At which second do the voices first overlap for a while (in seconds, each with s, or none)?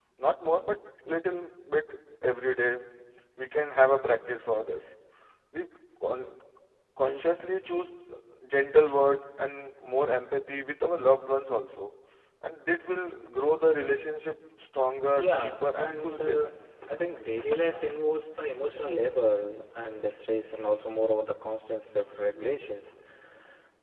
15.2 s